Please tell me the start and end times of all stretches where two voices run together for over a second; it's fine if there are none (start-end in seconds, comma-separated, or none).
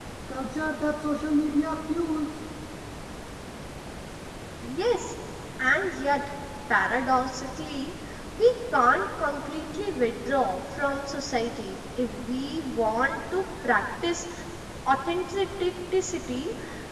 none